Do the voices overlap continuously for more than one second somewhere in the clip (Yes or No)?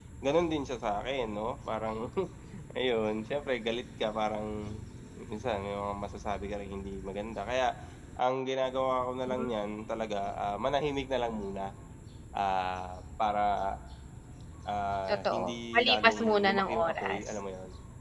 Yes